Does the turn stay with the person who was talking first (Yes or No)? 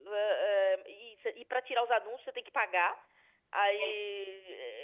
Yes